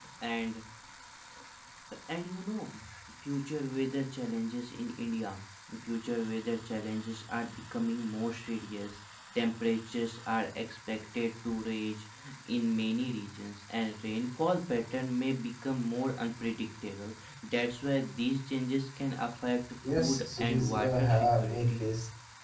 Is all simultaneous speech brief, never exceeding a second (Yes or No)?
No